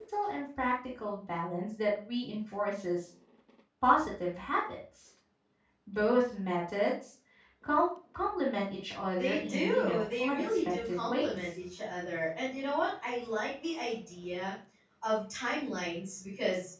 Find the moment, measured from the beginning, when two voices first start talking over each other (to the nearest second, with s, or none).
9 s